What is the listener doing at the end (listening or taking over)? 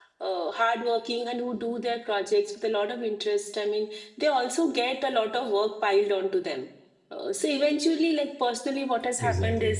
listening